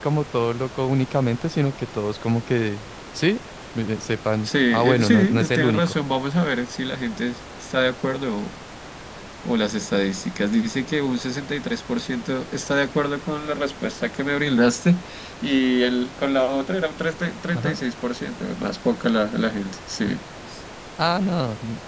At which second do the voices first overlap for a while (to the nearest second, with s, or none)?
4 s